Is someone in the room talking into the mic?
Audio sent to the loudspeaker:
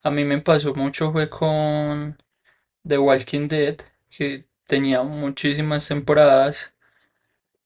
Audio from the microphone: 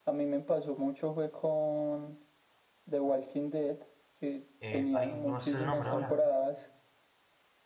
Yes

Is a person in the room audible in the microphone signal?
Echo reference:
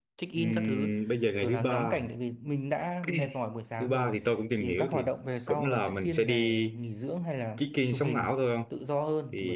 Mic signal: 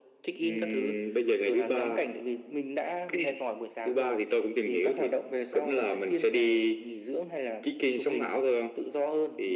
No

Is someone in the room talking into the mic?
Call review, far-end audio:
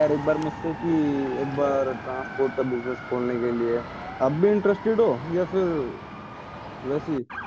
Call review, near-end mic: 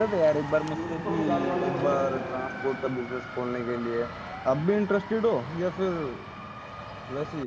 Yes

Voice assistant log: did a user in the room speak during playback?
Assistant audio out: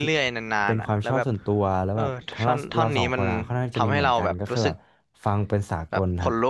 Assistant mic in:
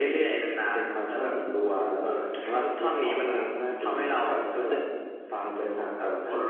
No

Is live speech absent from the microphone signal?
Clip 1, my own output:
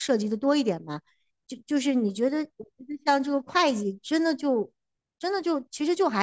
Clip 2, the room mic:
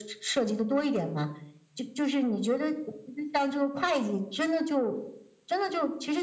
Yes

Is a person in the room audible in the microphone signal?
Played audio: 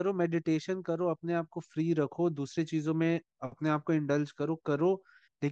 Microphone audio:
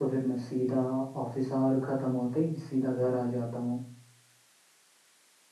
Yes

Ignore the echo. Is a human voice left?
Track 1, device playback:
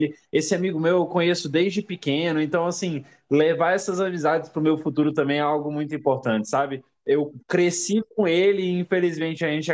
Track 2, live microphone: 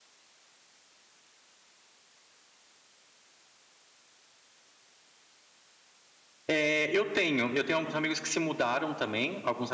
Yes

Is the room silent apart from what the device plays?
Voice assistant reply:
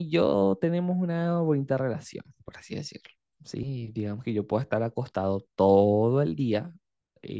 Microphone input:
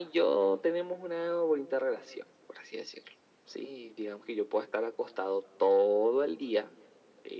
Yes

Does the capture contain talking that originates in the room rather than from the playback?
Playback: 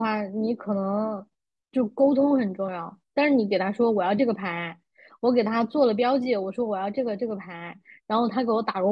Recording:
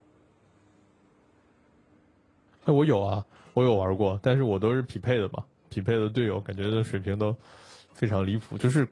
Yes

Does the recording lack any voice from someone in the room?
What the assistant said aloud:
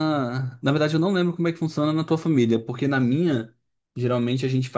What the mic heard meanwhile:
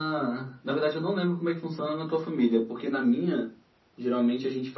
Yes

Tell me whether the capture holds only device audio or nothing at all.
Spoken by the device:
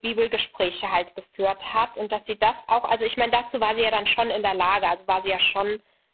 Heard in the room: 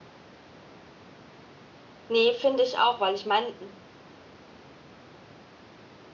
No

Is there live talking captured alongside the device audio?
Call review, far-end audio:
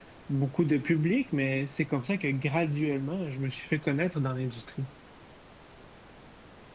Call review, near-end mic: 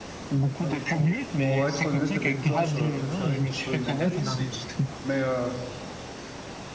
Yes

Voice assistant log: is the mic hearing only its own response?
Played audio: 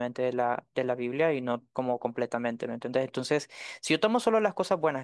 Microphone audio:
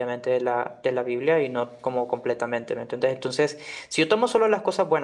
Yes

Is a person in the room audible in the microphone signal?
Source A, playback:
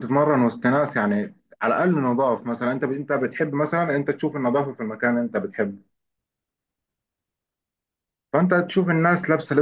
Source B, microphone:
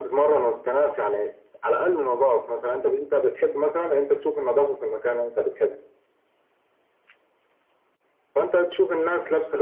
No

